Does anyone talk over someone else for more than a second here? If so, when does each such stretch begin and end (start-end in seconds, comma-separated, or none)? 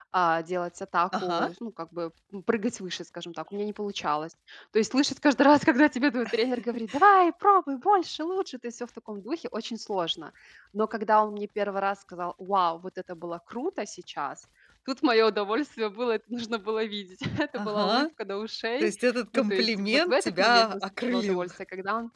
19.3-21.5